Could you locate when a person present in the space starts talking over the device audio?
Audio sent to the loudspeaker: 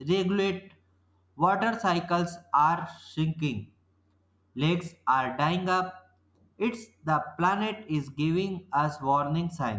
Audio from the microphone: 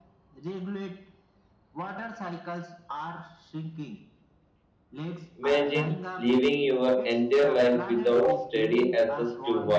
5.4 s

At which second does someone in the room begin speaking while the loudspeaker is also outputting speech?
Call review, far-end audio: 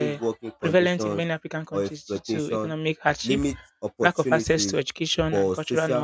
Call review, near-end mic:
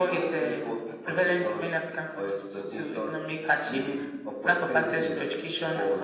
none

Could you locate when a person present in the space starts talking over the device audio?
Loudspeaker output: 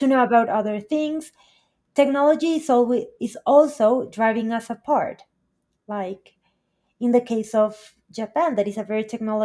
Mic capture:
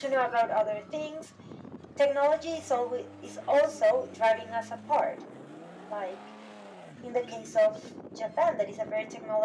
none

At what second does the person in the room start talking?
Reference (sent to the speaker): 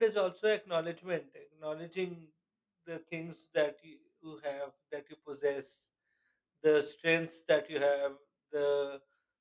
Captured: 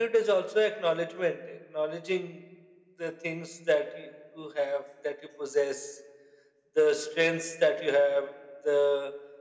none

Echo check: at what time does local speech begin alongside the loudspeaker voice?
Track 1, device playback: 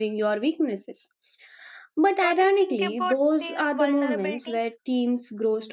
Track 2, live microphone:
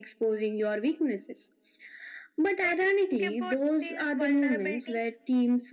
none

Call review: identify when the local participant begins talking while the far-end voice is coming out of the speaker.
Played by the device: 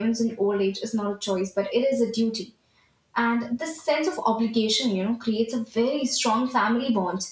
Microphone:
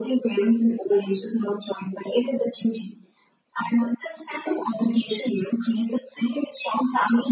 none

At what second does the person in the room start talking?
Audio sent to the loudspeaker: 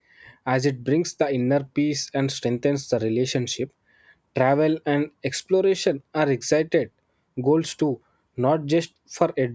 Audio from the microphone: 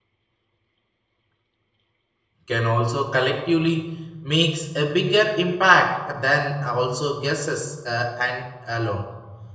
2.4 s

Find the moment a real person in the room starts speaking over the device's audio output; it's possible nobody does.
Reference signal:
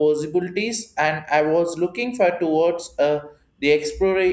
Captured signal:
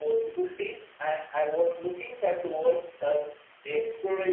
none

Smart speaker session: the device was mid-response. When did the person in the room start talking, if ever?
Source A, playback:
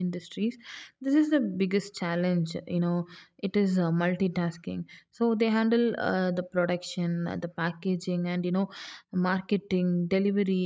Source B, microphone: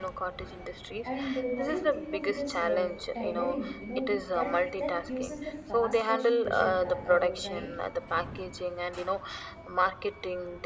1.0 s

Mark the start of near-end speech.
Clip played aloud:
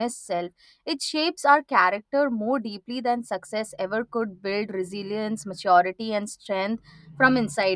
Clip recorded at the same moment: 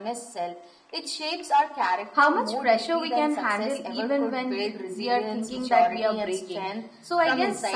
2.1 s

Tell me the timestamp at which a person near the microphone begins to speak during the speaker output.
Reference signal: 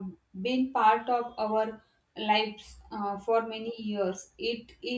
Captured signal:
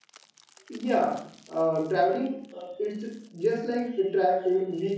0.7 s

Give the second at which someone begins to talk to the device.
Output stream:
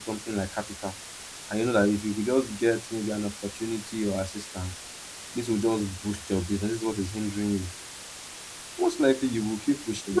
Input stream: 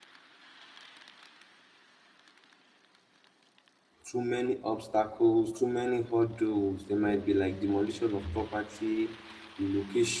4.0 s

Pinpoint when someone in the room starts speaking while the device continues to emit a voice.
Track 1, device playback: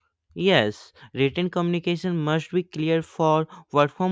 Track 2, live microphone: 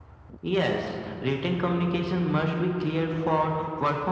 none

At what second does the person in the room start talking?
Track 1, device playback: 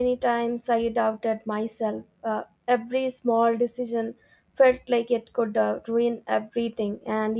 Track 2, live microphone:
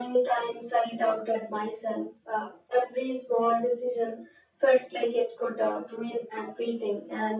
none

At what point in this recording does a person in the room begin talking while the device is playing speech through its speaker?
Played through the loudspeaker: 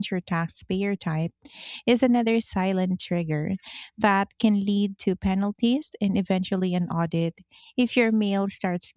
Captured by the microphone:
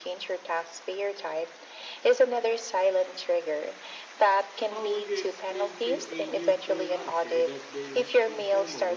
4.6 s

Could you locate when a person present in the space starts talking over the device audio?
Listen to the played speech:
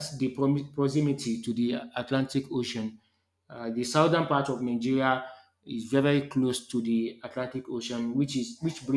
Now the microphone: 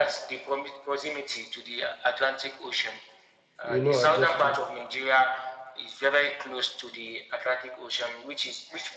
3.6 s

